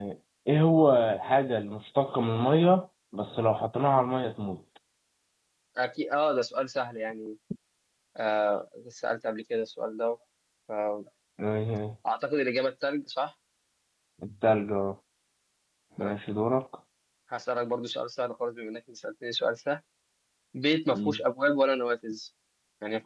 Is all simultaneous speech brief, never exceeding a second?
Yes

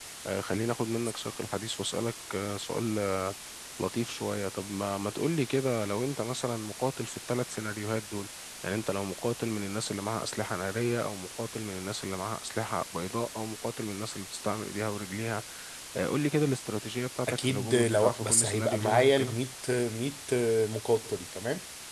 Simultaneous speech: Yes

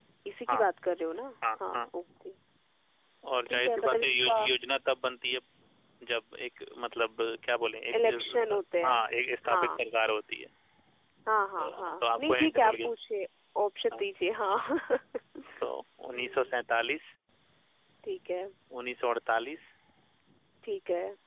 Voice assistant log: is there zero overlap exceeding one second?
No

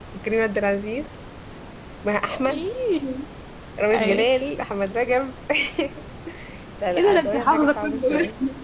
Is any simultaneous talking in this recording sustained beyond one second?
Yes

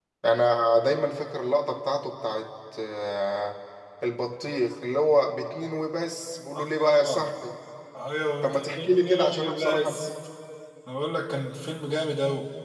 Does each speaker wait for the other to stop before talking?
No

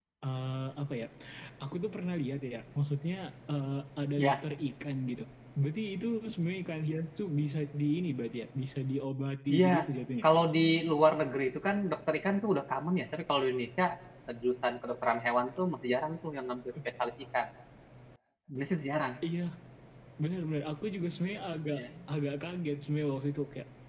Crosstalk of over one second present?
No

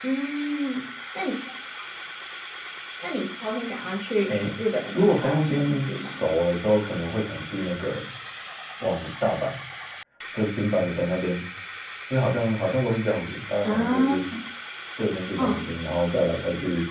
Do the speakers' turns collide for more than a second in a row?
Yes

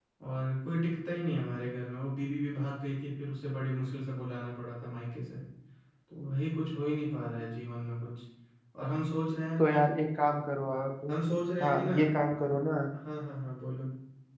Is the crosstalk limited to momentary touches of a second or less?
Yes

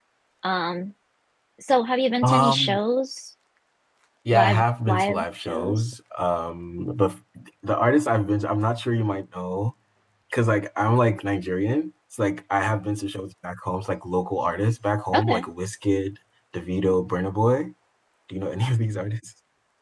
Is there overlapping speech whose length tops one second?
Yes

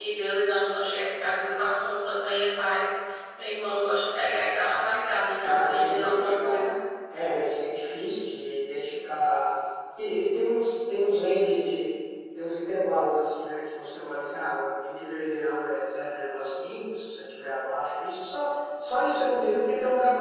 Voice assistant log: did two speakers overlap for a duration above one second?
Yes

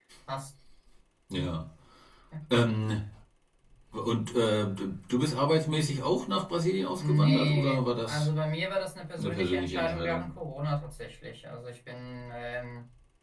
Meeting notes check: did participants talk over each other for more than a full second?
Yes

